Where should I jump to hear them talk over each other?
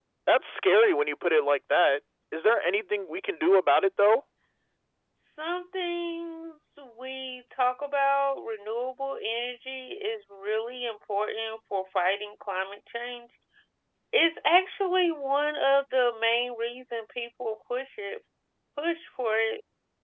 none

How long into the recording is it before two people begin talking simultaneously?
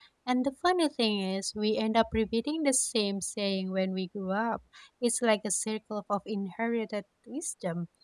none

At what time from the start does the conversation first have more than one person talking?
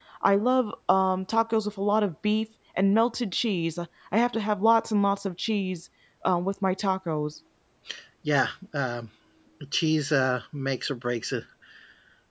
none

